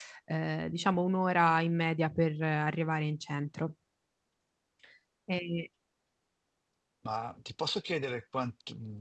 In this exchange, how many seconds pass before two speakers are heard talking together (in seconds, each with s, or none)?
none